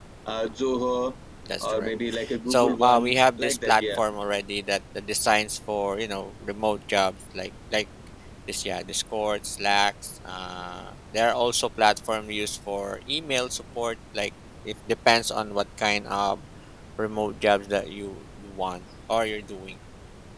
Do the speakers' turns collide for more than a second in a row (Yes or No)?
Yes